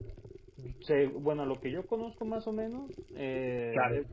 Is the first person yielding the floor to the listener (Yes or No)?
No